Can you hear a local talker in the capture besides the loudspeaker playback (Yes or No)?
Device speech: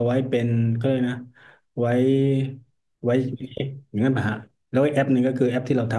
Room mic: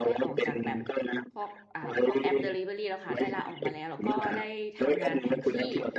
Yes